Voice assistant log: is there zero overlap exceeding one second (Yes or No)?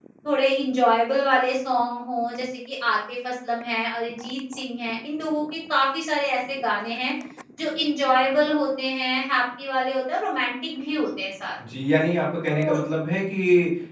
Yes